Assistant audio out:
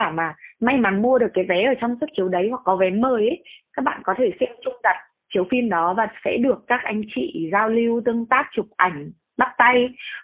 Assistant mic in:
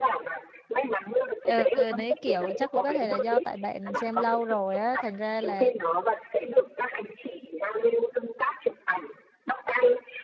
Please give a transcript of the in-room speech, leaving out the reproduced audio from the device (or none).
Ừ, nấy kiểu chắc cũng có thể là do tại bạn xem lâu rồi á thành ra là